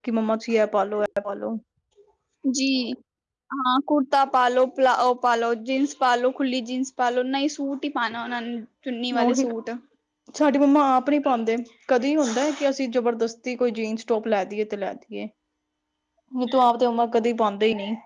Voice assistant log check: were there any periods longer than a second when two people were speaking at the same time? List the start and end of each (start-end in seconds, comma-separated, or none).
none